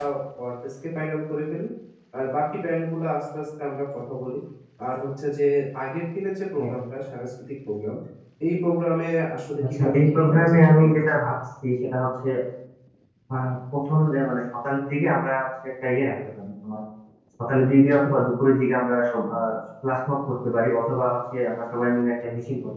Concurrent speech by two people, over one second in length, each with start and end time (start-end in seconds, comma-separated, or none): 9.7-10.9